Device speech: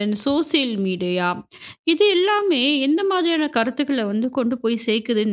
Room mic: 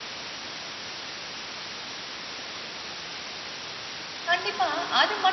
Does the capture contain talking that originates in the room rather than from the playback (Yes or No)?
Yes